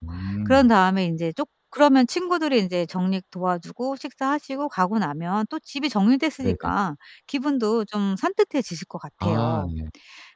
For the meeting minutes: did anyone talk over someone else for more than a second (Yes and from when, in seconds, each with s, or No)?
No